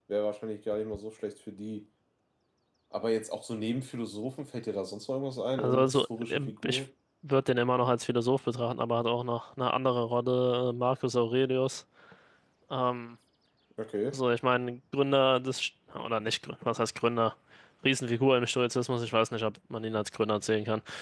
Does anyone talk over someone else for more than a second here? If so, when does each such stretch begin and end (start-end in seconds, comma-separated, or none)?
5.6-6.8